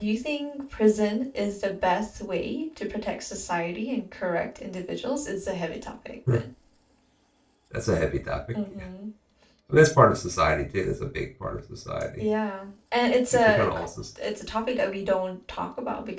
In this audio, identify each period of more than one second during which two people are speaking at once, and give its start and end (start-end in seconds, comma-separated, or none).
none